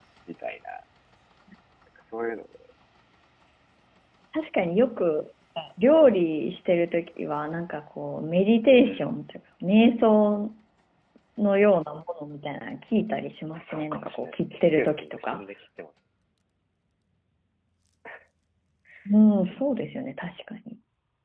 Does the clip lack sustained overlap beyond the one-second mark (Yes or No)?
No